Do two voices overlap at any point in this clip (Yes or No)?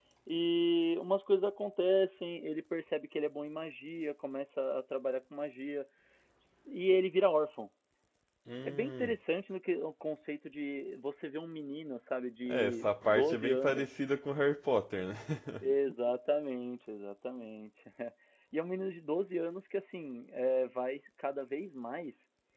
Yes